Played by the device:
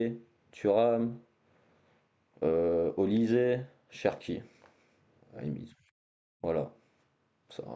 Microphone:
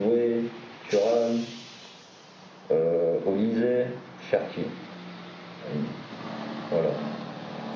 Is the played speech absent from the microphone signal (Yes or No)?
No